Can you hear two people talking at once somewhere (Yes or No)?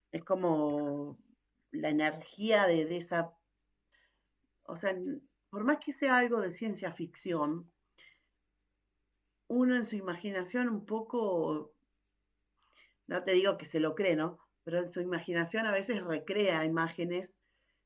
No